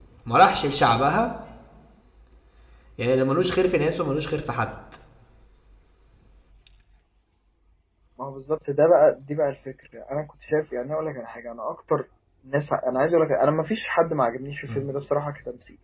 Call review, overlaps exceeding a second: none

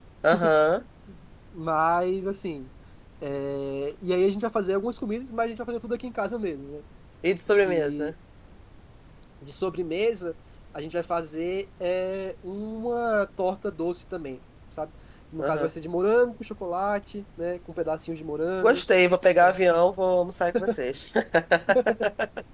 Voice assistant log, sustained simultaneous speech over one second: none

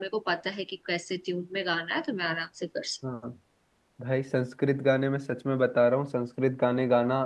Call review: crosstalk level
none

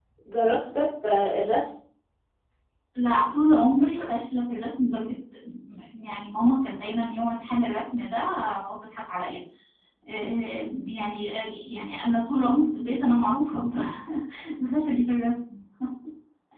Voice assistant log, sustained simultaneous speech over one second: none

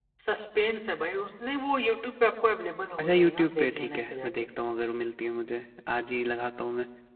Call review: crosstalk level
present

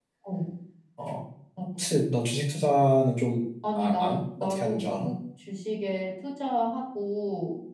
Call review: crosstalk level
present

